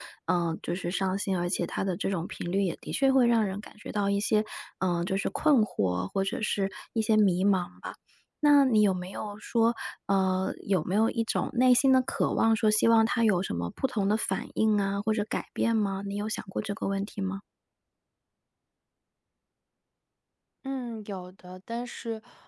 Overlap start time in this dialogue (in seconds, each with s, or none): none